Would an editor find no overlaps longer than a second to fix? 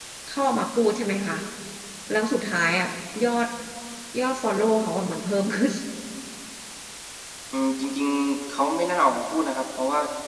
Yes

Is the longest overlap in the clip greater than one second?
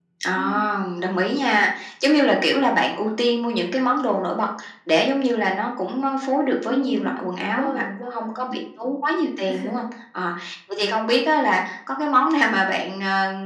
Yes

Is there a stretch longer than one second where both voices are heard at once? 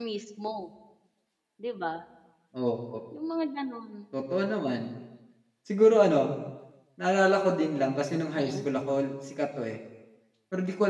No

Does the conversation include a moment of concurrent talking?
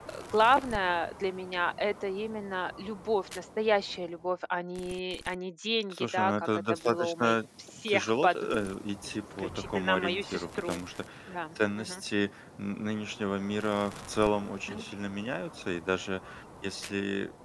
Yes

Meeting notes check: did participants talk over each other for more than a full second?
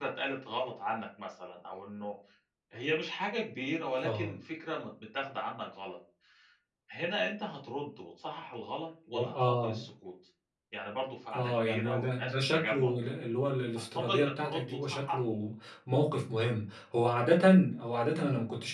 Yes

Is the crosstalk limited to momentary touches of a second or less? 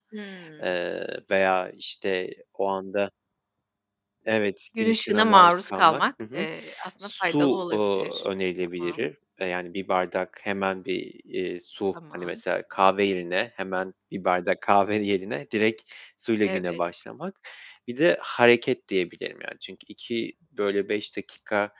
No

